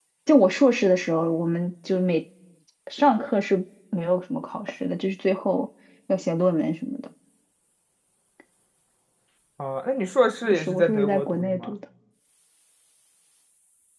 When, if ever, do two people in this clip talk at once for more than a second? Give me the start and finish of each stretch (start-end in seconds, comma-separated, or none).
10.5-11.7